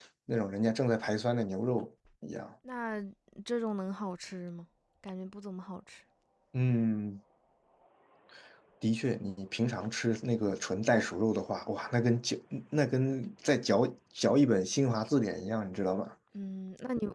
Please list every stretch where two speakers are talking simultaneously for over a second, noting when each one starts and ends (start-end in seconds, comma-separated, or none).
none